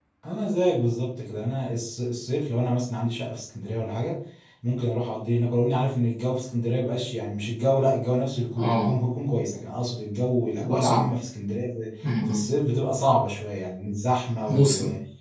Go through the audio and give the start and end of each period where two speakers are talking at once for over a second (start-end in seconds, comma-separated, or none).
none